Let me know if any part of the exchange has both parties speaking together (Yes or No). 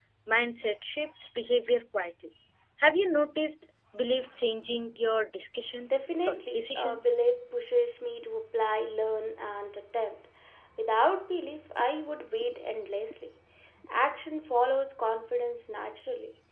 Yes